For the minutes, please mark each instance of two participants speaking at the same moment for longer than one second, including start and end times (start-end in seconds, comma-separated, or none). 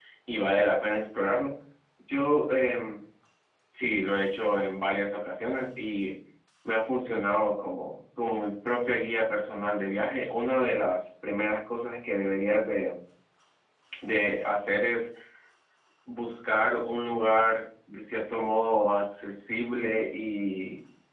none